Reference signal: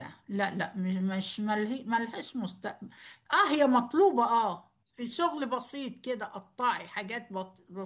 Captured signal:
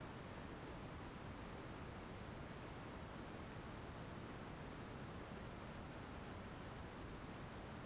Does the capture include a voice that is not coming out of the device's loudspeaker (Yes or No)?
No